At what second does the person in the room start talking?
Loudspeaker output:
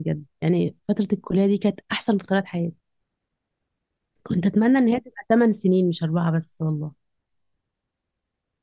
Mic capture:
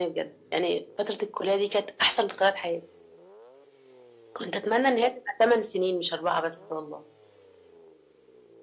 none

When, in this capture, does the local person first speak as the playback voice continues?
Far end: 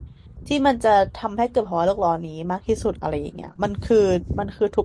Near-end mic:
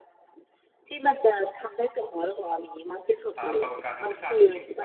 3 s

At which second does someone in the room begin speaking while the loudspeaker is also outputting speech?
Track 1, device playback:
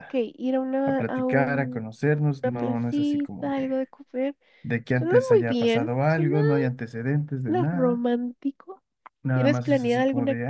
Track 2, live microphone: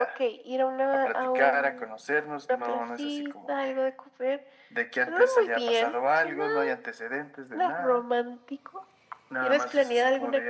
none

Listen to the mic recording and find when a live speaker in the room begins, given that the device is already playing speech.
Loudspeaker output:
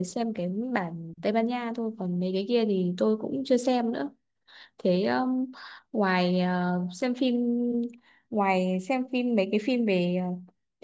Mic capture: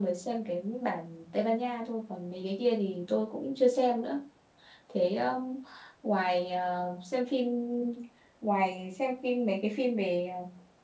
none

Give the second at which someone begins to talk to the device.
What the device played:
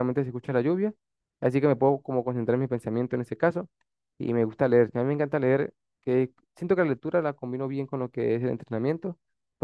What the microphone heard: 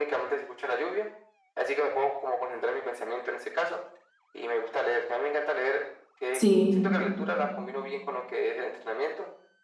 6 s

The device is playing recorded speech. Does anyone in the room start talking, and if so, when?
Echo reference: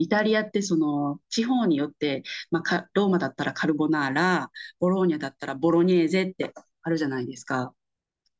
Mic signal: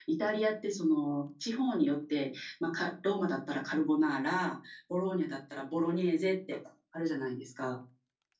none

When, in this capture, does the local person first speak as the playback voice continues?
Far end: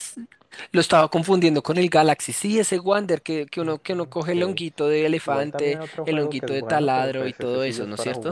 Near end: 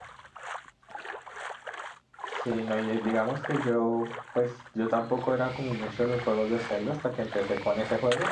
2 s

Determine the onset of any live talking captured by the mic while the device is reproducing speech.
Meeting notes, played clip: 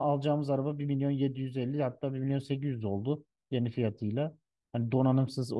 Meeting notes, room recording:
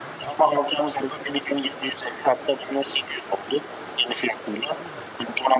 none

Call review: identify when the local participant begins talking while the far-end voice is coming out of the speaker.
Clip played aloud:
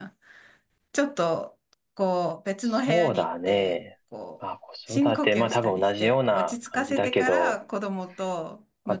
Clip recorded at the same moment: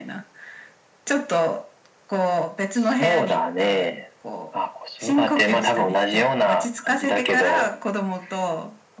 none

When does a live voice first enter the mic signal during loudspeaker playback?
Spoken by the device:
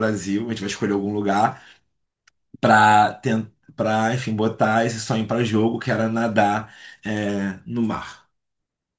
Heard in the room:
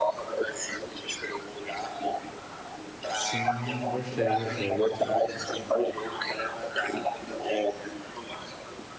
3 s

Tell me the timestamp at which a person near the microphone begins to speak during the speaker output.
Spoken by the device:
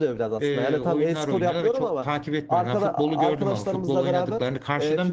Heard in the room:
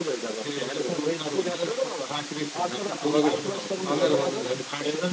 3 s

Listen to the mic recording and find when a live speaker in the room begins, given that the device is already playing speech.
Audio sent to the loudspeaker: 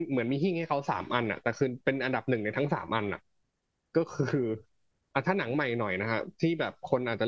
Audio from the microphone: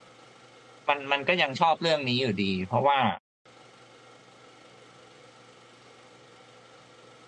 1 s

